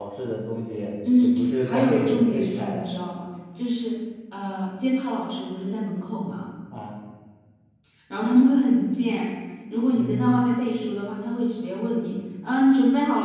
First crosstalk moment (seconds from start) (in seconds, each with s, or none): 1.2 s